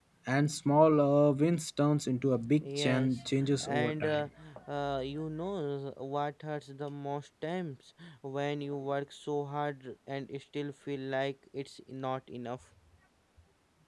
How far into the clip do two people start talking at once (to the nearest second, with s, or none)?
3 s